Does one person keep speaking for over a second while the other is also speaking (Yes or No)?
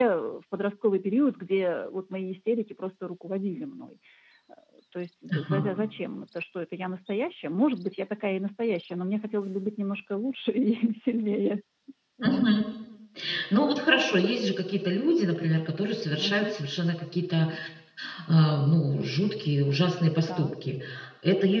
No